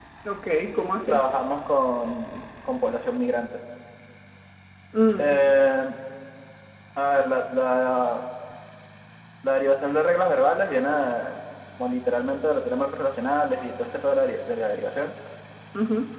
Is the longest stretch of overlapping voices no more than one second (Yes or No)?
Yes